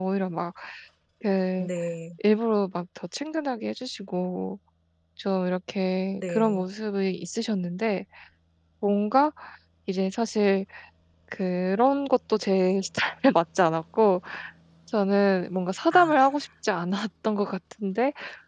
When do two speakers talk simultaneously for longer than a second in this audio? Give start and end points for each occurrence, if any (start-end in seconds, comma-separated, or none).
none